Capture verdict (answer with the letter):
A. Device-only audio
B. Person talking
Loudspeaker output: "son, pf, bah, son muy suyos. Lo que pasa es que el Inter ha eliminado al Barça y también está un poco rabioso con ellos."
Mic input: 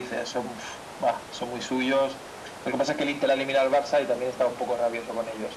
A